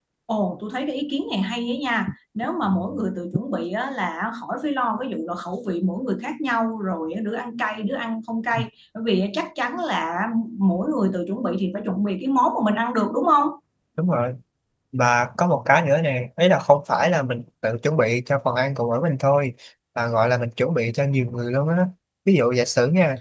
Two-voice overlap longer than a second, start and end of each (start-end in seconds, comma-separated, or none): none